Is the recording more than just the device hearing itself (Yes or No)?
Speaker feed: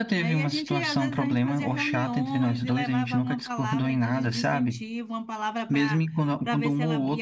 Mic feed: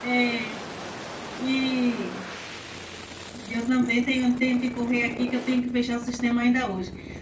Yes